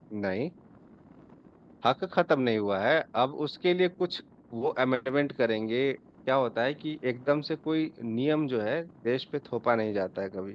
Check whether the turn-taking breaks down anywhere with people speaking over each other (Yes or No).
No